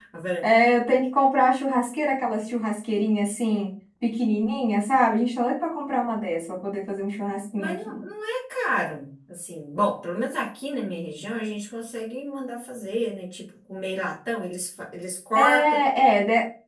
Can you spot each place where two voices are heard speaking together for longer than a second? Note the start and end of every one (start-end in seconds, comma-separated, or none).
none